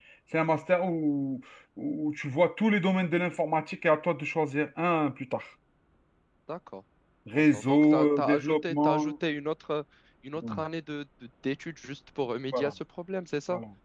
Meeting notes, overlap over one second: present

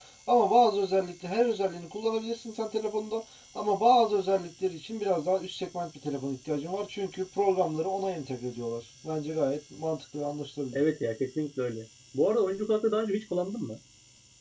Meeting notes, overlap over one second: none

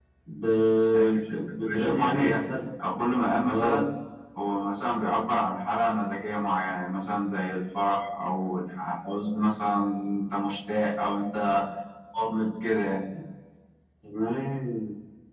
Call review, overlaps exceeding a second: present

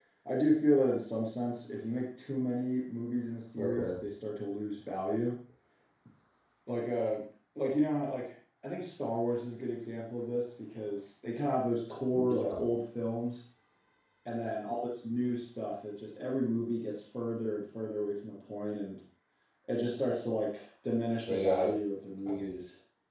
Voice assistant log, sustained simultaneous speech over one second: none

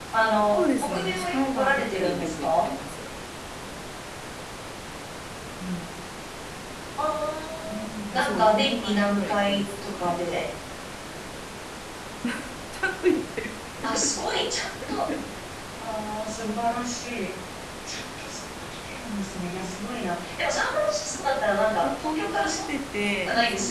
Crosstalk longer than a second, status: present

